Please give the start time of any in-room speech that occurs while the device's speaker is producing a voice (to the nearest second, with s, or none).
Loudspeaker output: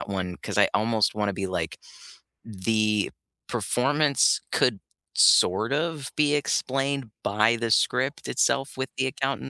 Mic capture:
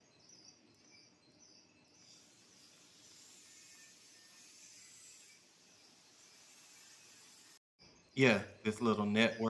8 s